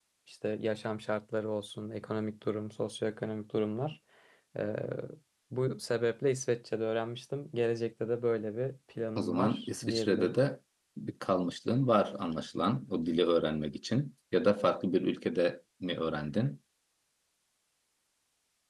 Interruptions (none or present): present